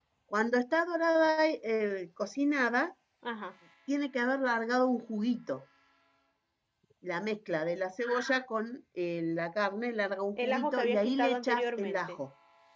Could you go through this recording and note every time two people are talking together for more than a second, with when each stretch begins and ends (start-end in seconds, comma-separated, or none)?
10.4-12.2